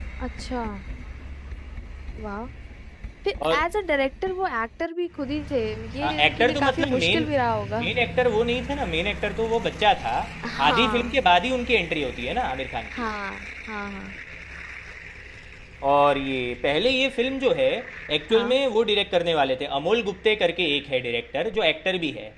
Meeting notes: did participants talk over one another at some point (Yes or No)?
Yes